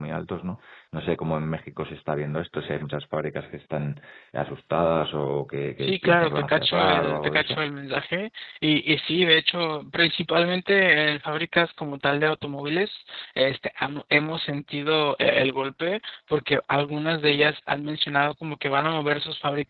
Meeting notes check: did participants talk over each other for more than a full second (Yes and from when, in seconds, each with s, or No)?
Yes, from 5.8 s